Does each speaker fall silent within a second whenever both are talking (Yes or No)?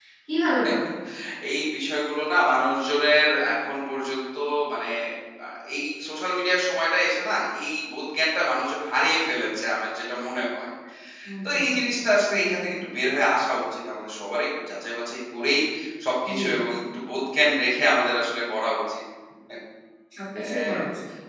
Yes